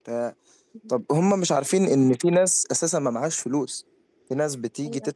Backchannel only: Yes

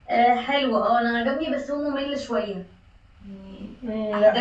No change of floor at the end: No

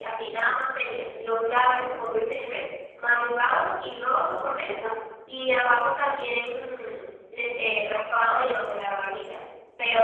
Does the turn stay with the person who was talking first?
Yes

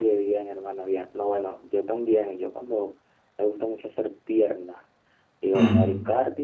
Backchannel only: Yes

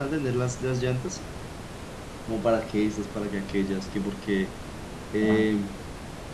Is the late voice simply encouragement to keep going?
Yes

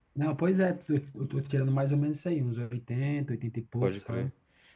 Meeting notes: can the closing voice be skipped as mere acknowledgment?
No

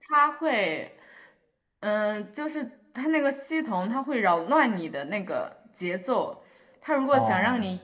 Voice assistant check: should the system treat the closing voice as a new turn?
No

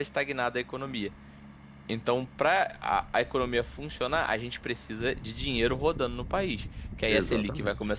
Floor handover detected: No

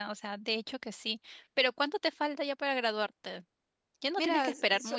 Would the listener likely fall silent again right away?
No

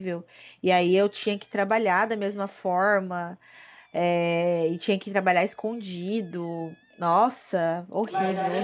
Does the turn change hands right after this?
Yes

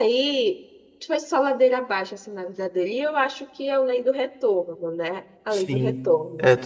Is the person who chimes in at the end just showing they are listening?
No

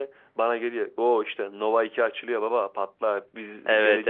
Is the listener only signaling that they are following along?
No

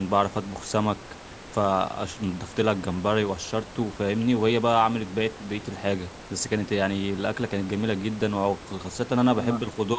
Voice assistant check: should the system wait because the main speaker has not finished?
Yes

